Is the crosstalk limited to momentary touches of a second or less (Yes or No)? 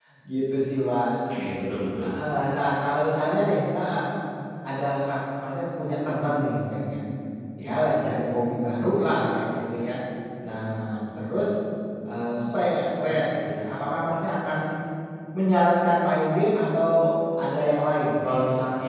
Yes